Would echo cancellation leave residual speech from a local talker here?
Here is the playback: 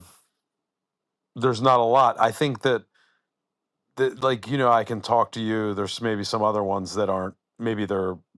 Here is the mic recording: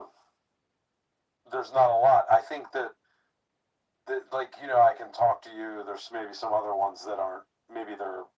No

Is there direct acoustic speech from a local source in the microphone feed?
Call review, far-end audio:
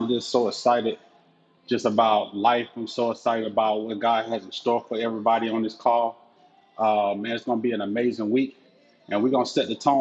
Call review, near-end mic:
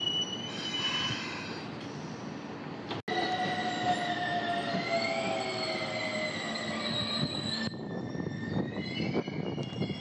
No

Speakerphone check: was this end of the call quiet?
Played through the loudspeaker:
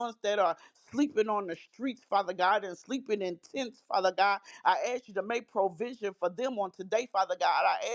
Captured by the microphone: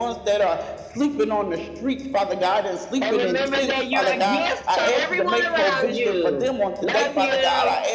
No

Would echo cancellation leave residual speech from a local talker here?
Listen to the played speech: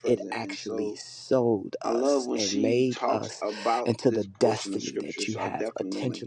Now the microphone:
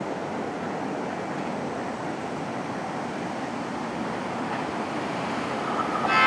No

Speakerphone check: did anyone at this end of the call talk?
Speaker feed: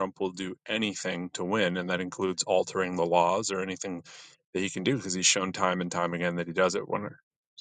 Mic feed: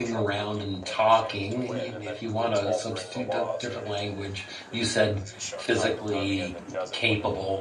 Yes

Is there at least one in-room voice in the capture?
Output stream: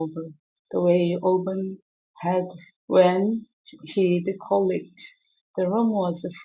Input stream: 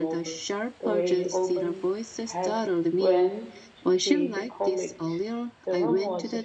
Yes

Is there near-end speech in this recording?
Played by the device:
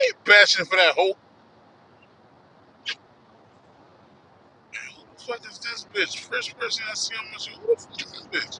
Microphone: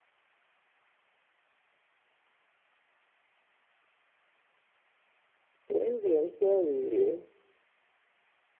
Yes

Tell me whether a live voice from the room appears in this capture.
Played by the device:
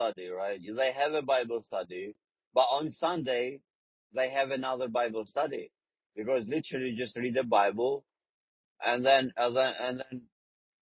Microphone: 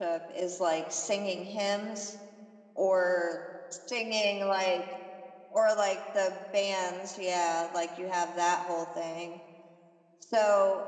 Yes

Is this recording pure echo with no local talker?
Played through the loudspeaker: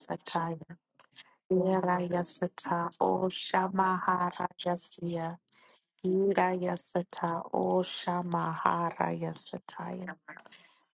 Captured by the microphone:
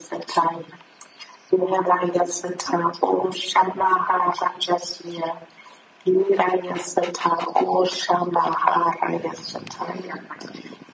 Yes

